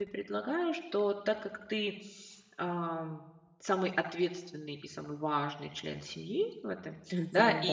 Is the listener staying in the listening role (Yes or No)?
Yes